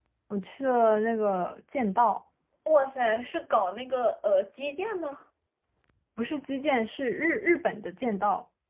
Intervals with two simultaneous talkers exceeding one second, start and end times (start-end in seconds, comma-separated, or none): none